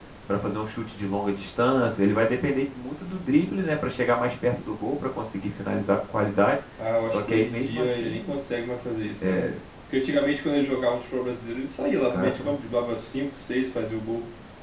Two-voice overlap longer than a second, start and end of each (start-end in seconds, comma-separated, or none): 7.1-8.3